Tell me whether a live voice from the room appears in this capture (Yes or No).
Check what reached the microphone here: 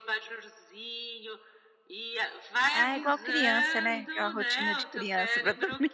Yes